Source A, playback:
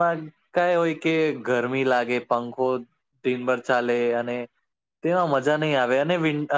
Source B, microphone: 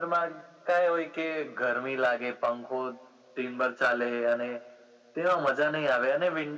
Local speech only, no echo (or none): none